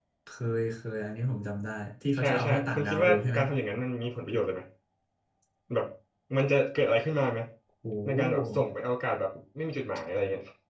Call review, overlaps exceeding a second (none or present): present